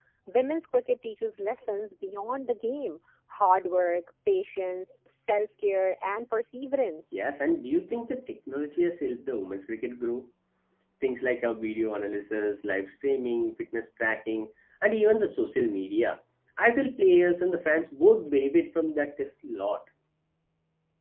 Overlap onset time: none

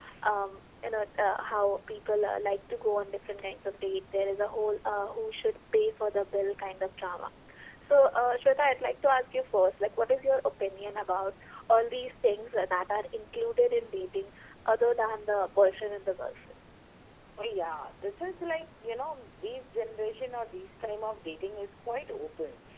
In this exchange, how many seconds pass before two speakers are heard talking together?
none

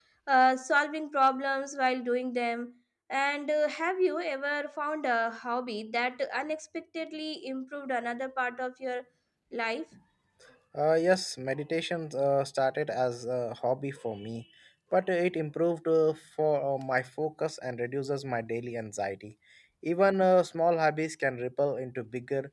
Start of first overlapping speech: none

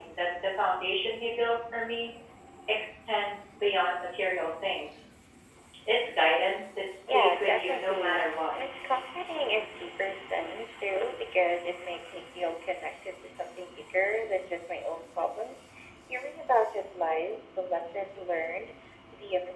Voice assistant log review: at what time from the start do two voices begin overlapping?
7.1 s

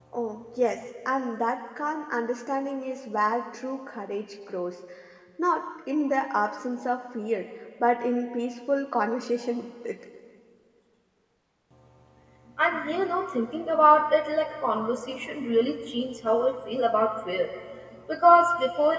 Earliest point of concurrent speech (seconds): none

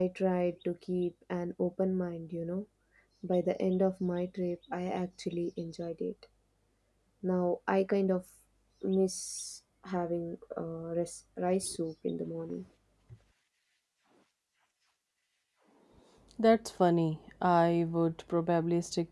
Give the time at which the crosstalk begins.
none

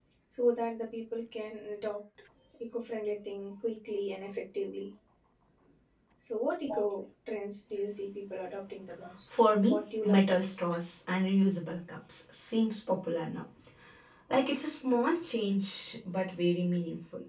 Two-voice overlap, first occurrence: 9.3 s

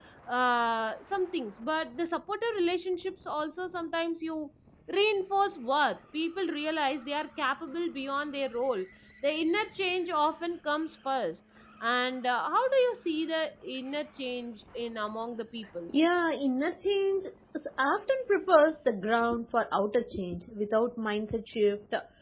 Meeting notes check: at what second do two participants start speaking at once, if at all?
none

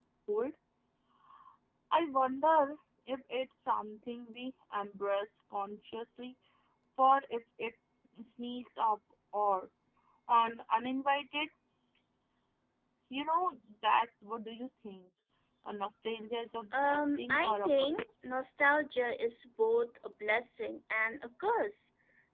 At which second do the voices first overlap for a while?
16.7 s

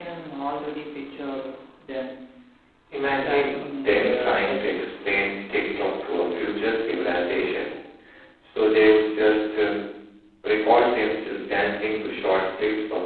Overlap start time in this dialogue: 3.2 s

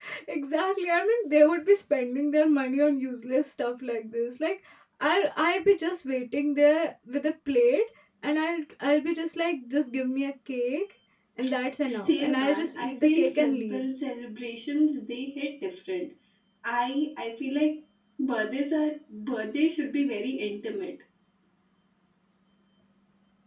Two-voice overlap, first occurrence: 11.9 s

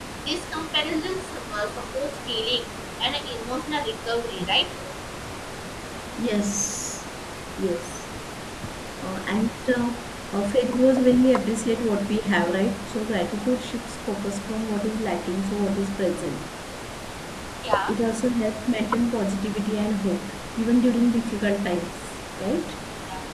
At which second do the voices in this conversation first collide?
none

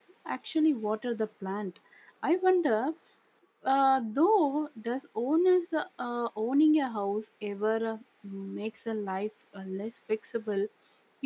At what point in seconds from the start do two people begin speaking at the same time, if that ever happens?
none

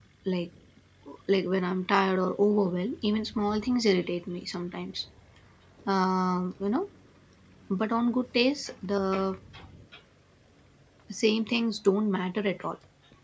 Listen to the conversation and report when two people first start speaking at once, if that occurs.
none

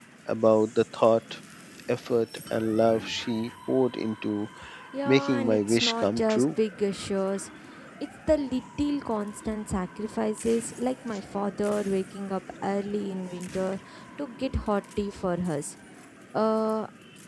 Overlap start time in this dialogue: 5.0 s

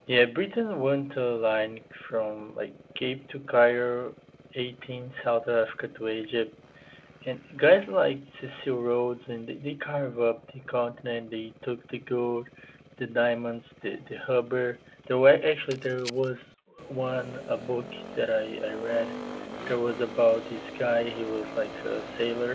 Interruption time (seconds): none

